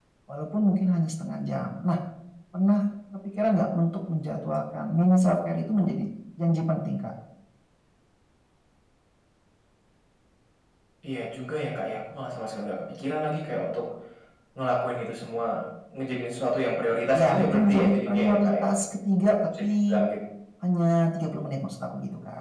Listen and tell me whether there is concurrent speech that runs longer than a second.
Yes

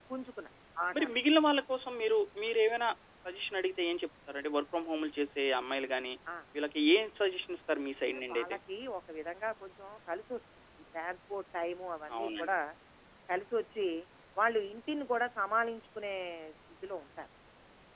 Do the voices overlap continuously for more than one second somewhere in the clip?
No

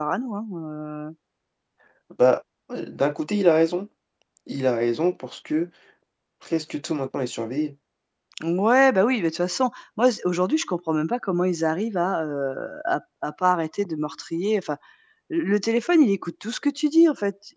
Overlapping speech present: No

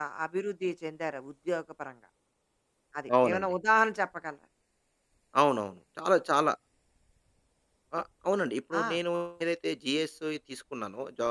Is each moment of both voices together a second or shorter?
Yes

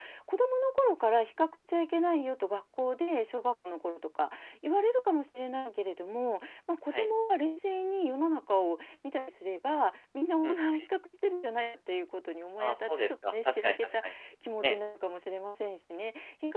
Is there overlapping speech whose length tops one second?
Yes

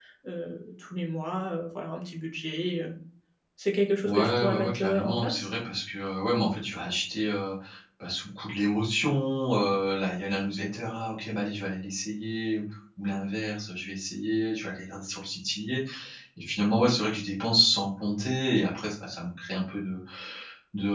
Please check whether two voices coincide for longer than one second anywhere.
Yes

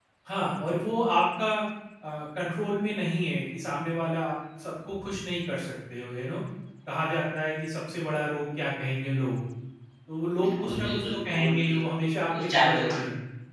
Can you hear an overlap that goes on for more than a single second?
Yes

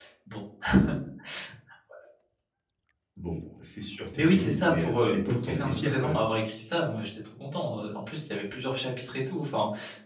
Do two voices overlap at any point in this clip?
Yes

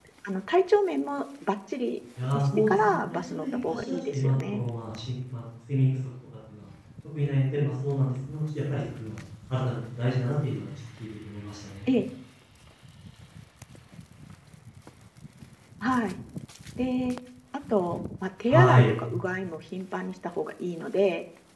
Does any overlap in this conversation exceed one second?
Yes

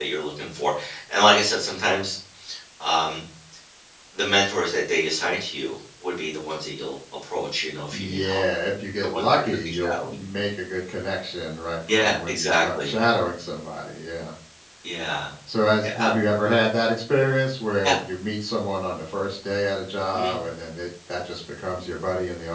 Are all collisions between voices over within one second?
No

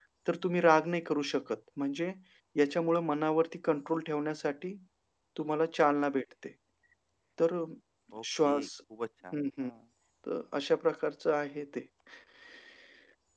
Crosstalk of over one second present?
No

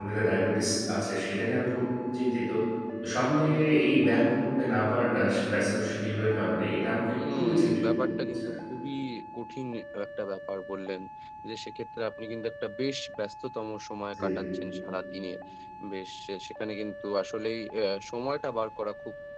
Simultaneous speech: Yes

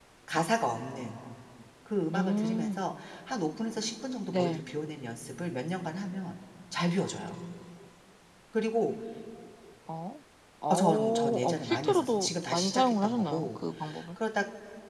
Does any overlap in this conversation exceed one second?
Yes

